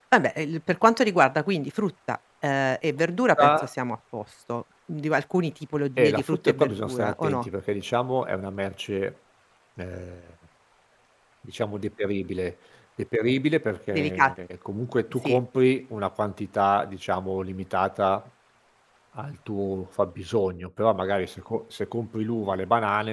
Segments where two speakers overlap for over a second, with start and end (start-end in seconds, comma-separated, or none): 6.0-7.5